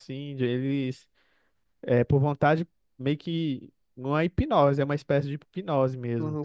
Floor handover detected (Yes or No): Yes